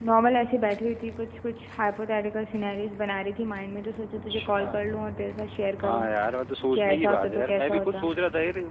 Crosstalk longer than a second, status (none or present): present